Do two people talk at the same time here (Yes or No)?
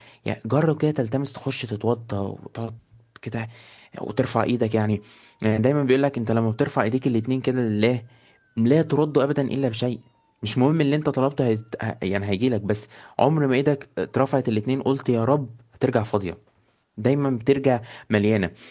No